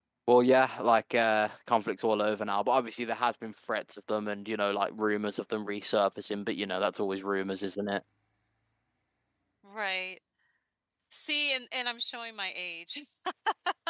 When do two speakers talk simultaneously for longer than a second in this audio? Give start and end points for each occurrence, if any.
none

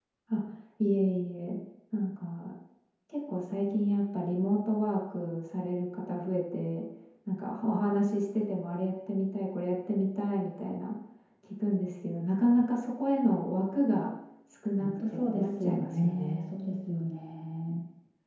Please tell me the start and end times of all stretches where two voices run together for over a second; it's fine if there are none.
14.8-16.4

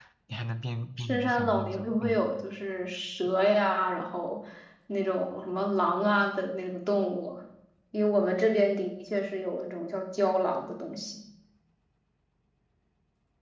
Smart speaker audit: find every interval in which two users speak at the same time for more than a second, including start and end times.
1.0-2.3

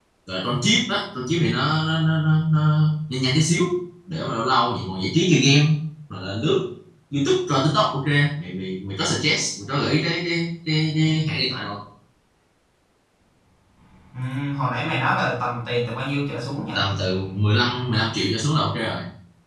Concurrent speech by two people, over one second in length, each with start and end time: none

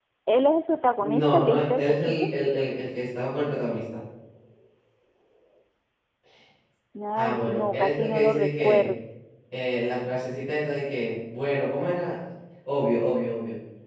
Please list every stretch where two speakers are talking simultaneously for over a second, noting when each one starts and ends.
1.0-2.3, 7.2-8.9

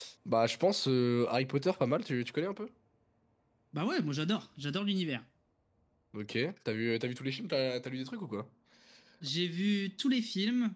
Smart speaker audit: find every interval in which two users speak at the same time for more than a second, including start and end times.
none

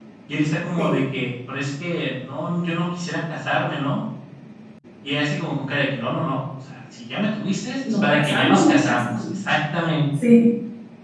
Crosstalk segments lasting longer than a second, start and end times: 7.9-9.3

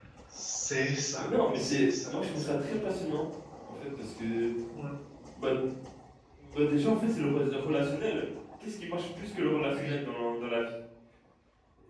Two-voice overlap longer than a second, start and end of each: 1.2-2.8

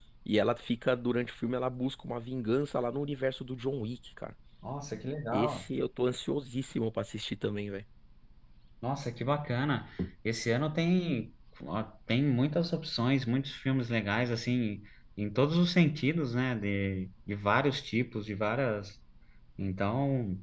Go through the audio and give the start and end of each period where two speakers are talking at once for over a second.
none

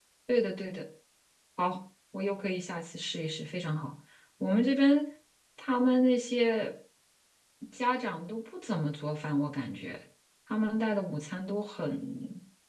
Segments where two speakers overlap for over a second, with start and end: none

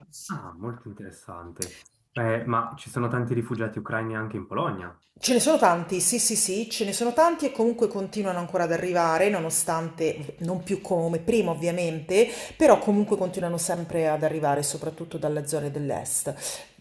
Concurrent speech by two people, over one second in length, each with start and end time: none

